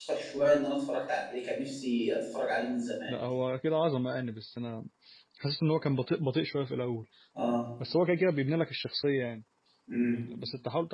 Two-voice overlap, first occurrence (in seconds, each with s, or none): none